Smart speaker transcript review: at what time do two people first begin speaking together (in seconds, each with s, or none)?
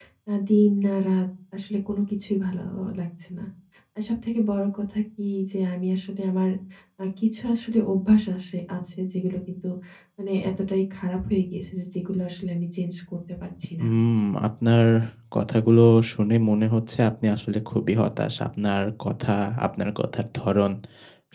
none